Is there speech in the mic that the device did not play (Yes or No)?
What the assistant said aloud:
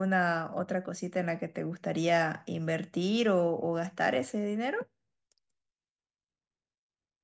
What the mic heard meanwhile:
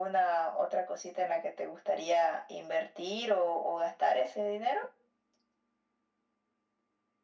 No